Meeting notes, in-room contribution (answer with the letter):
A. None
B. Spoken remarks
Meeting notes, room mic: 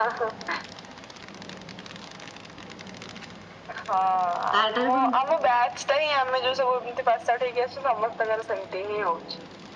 B